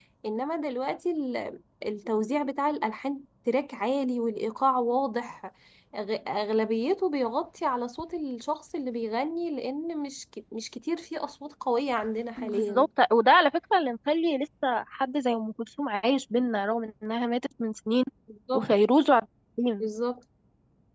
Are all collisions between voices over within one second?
Yes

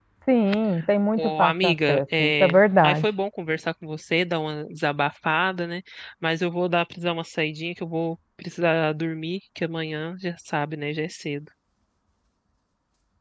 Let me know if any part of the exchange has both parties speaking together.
Yes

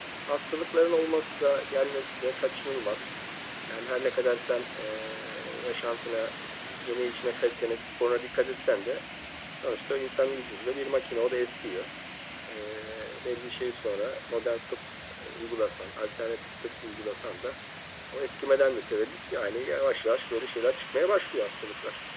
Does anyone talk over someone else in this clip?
No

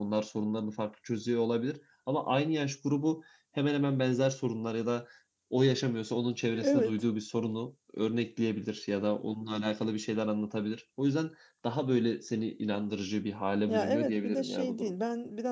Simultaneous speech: Yes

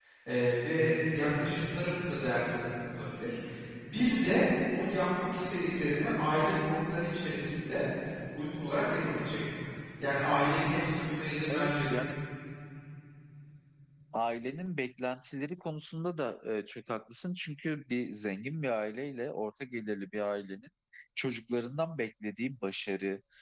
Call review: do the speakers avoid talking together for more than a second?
Yes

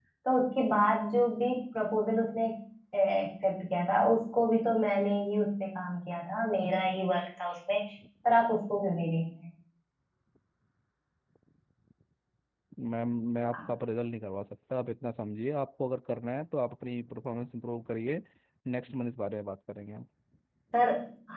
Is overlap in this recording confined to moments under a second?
Yes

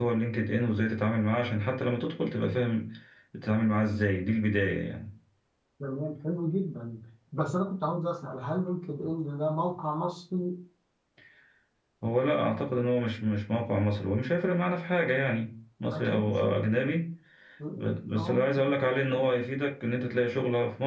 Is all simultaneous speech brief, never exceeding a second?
No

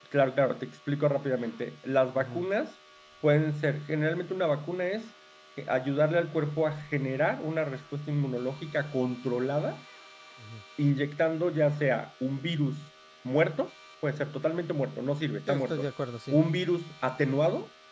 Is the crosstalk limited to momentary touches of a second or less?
Yes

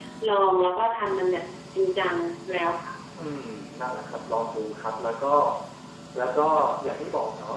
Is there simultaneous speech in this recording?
No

